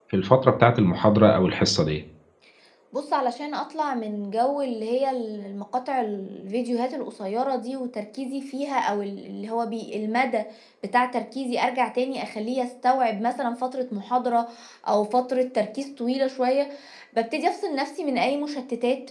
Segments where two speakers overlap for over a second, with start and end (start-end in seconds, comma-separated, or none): none